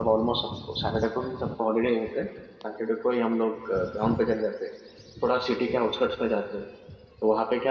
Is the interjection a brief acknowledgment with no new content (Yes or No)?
Yes